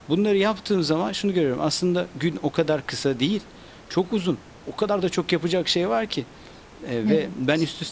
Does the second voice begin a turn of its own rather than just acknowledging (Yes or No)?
No